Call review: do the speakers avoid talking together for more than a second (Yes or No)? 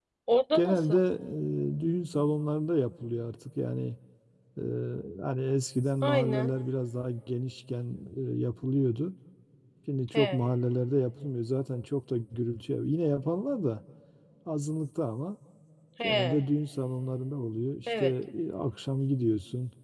Yes